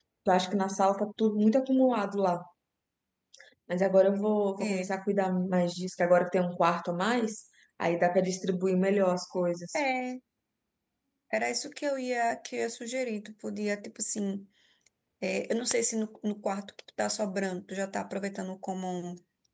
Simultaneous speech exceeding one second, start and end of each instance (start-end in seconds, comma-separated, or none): none